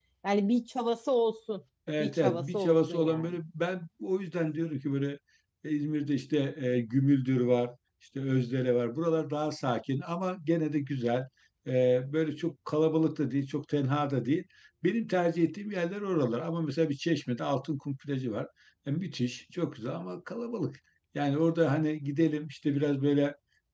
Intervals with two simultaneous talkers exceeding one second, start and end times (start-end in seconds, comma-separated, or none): 2.0-3.4